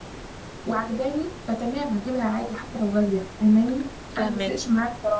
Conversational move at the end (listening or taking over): listening